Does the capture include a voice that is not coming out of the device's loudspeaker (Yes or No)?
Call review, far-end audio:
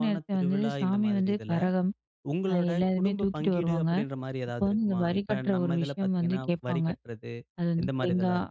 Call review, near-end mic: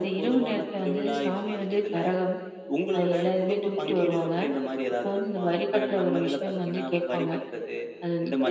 No